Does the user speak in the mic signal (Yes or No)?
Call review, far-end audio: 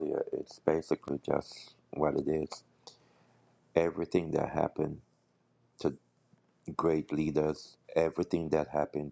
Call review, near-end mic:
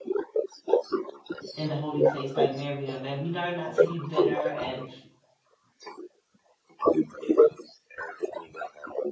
Yes